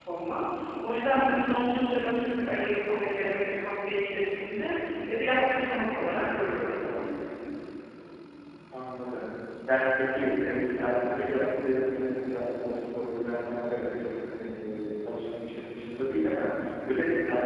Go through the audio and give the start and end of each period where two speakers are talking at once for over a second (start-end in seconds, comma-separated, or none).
none